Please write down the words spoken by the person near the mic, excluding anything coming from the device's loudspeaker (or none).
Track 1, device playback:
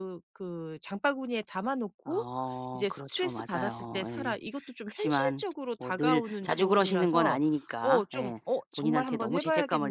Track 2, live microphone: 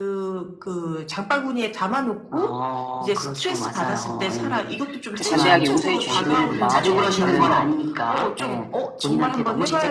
좀 관대하게 용서해 주시고 금방 예 얼른